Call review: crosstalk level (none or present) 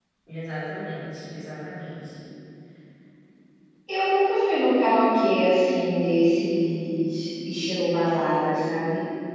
none